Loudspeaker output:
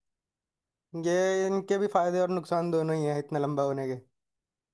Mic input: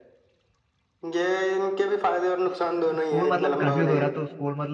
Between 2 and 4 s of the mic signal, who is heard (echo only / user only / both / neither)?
both